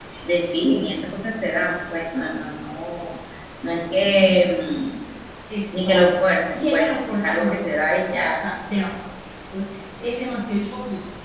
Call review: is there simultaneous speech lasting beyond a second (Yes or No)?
Yes